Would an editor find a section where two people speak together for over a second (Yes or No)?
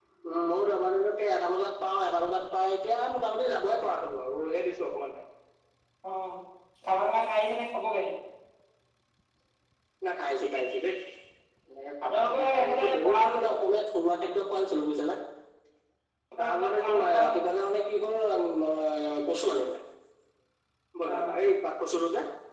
Yes